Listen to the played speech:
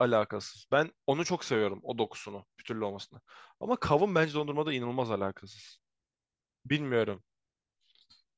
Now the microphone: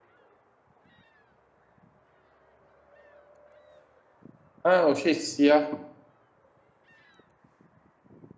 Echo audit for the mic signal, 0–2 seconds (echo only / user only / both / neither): neither